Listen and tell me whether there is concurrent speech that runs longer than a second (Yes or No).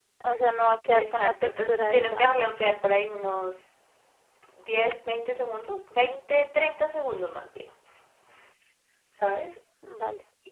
Yes